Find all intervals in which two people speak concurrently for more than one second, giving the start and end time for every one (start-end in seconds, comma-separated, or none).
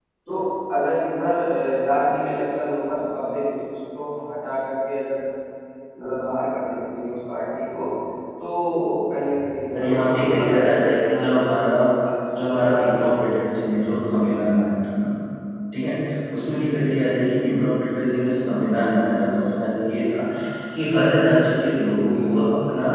9.7-11.7, 12.4-13.6